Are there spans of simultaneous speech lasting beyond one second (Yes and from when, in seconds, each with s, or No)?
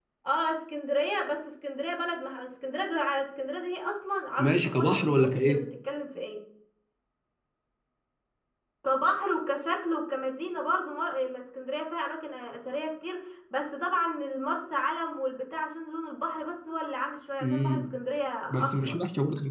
Yes, from 4.4 s